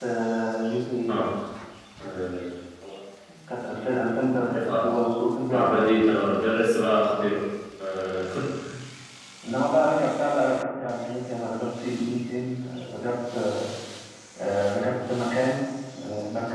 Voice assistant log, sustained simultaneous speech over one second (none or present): none